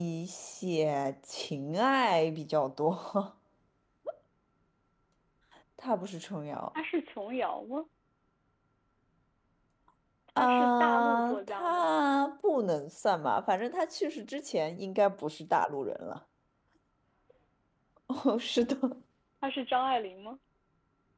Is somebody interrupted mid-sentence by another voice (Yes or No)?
Yes